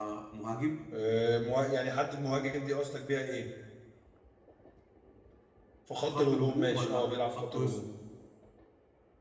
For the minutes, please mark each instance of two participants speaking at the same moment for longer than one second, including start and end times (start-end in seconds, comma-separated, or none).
6.1-7.8